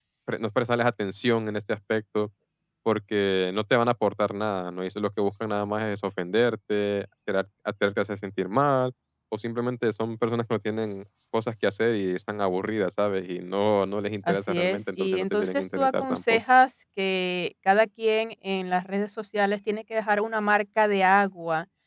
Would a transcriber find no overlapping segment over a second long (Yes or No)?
No